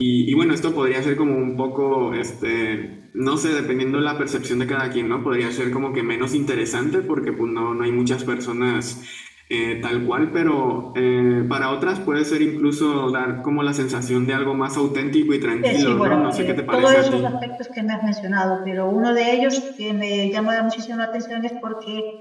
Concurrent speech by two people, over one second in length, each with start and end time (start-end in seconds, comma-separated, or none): 15.6-17.3